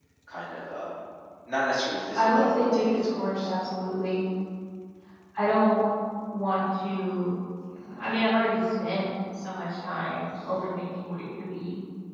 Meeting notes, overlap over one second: present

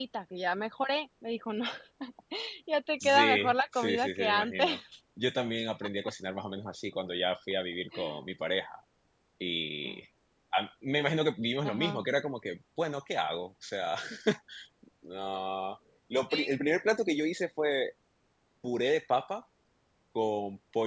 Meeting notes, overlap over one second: present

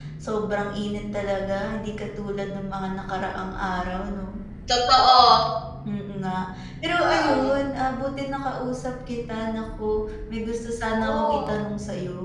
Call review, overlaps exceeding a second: none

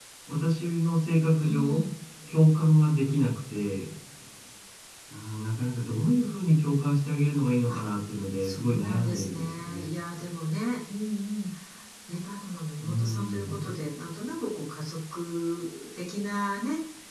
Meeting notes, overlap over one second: present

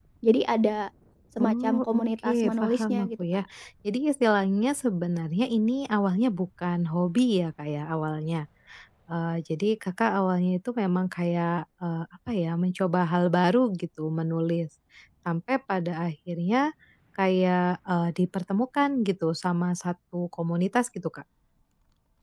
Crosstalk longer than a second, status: present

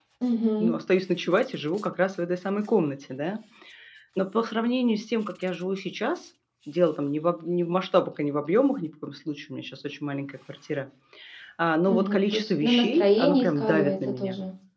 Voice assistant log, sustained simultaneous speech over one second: present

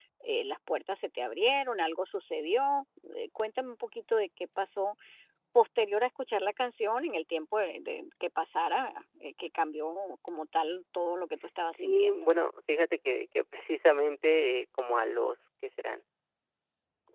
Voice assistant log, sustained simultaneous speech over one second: none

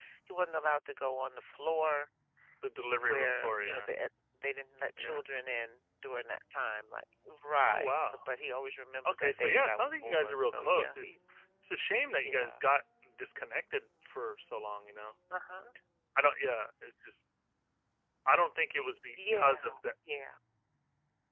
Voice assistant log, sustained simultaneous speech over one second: present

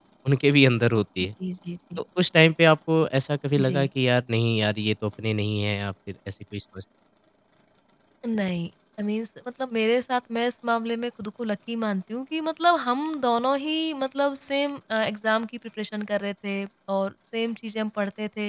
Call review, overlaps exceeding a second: none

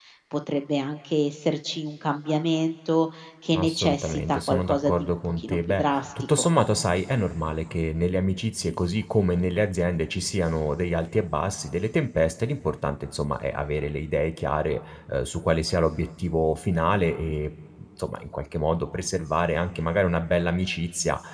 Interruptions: present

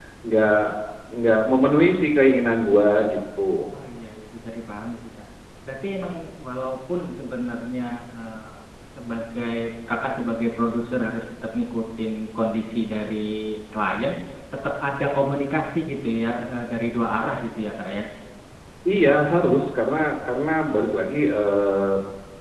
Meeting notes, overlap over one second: none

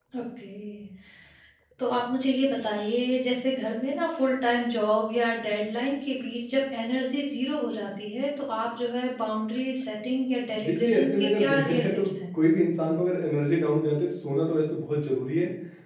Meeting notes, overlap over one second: present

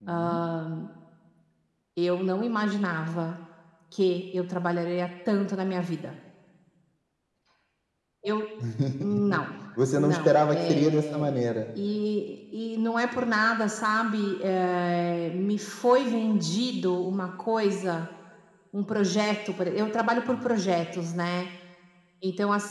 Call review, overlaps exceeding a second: present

